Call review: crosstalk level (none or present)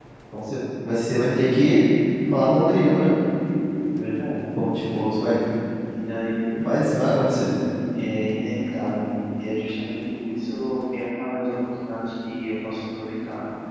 none